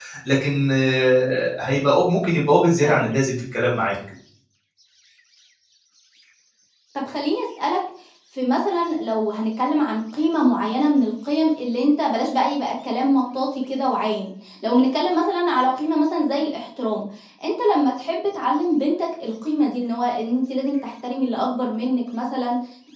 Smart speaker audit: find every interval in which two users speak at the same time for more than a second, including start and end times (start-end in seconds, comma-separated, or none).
none